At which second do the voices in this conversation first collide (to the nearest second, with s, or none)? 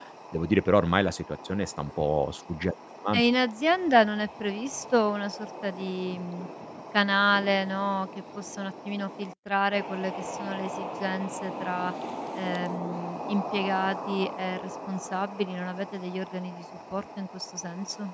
none